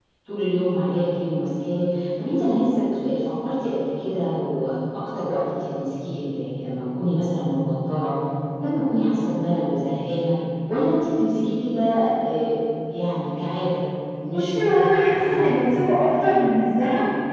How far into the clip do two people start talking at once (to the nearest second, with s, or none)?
14 s